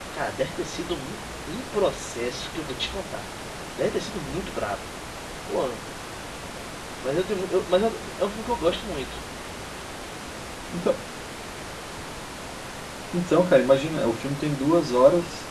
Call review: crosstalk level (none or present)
none